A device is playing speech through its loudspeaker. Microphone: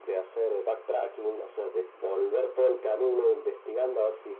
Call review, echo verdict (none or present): present